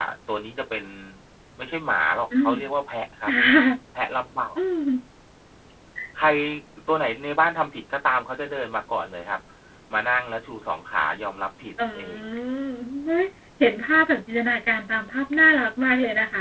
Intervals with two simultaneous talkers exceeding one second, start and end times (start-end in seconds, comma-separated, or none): none